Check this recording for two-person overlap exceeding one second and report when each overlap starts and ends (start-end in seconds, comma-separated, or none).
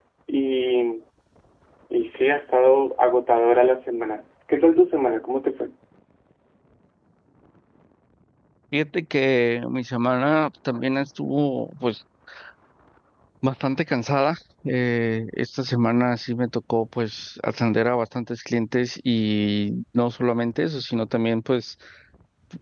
none